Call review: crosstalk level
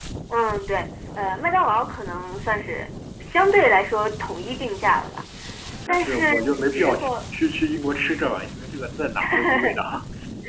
present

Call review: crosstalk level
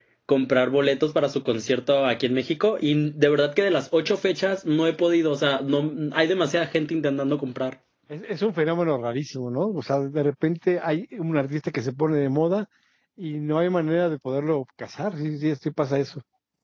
none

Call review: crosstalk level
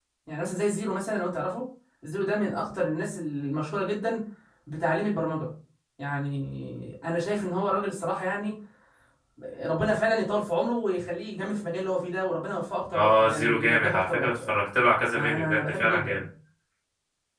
present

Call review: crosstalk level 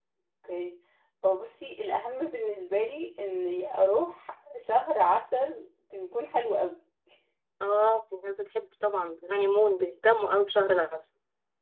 none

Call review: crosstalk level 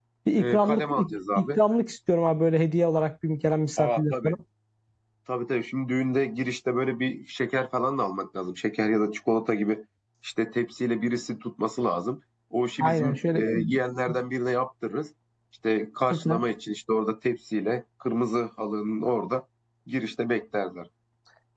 present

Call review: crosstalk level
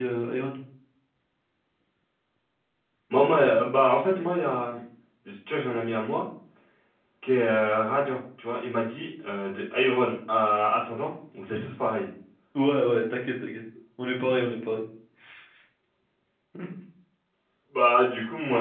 none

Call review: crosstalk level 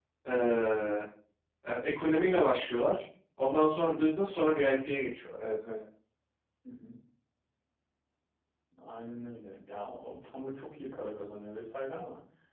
none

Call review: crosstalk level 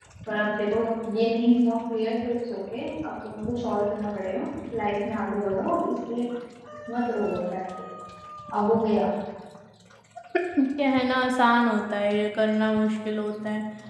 none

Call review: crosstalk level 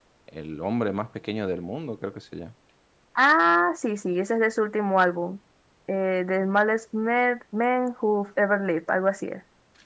none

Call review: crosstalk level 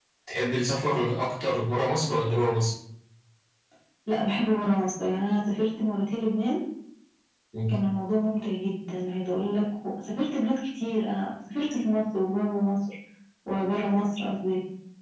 none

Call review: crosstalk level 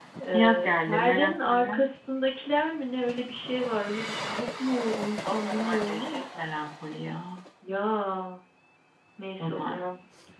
present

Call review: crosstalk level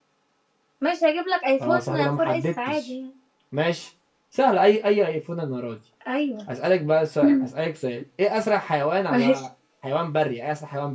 present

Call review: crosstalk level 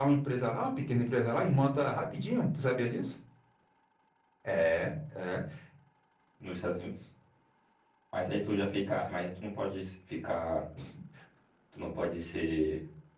none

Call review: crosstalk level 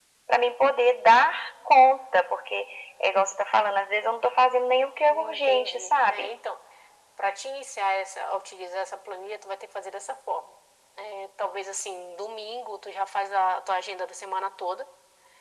present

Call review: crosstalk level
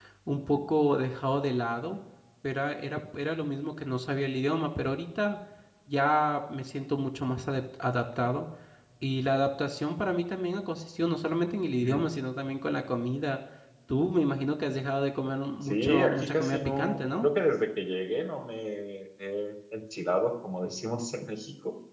present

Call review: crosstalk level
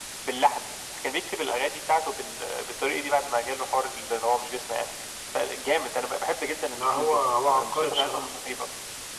present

